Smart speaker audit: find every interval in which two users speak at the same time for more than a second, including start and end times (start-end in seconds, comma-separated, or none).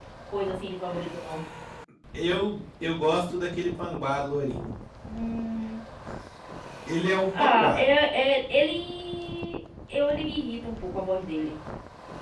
none